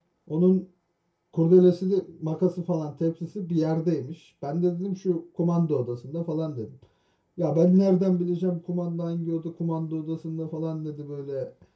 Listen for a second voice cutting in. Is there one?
No

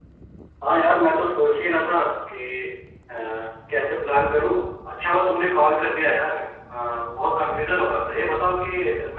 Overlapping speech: No

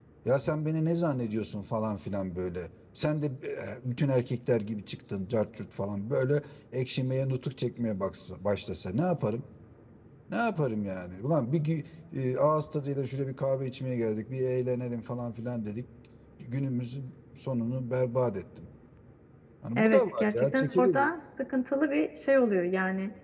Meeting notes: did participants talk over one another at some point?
Yes, from 19.8 s

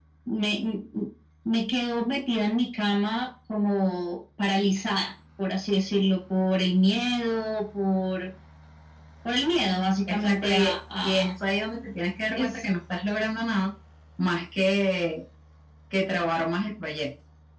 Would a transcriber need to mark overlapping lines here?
Yes, from 10.1 s

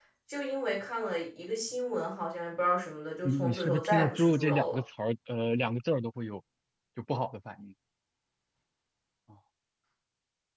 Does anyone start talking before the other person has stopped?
Yes, from 3.2 s

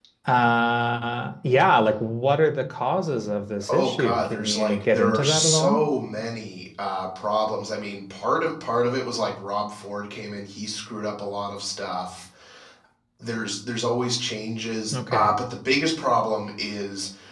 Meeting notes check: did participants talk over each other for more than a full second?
Yes, from 3.7 s

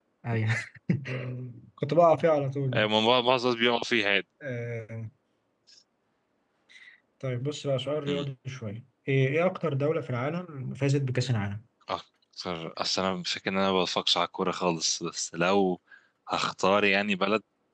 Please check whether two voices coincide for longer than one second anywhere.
No

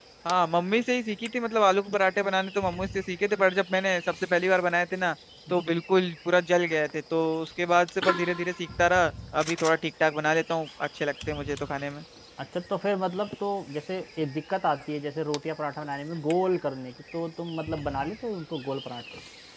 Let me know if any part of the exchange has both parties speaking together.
No

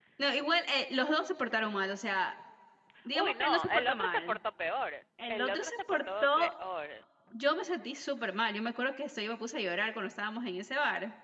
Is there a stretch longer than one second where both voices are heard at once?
Yes, from 3.1 s

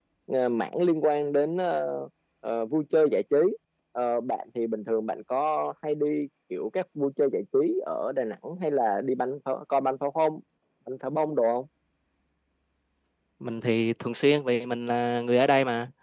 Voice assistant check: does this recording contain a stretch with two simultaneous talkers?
No

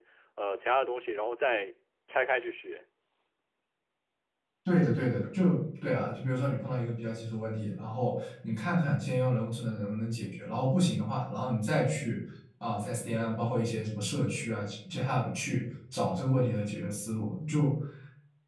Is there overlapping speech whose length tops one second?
No

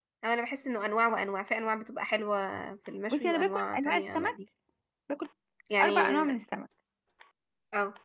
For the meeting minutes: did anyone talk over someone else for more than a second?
Yes, from 3.1 s

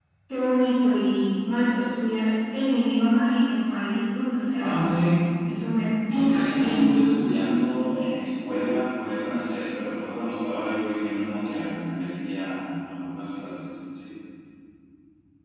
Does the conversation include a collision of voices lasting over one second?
No

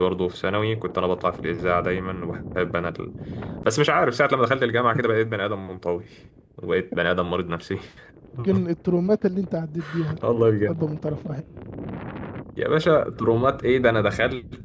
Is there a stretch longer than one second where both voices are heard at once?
No

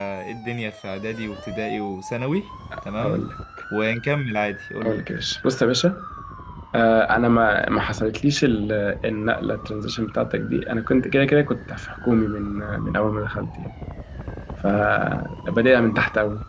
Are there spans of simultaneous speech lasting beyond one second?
No

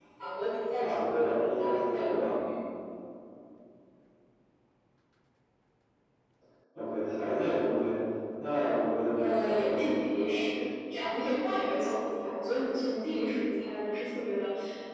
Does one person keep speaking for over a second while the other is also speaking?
Yes, from 0.8 s

